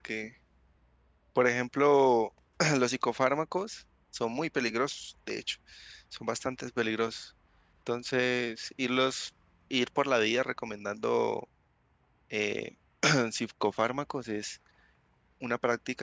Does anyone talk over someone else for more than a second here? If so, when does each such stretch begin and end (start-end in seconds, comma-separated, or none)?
none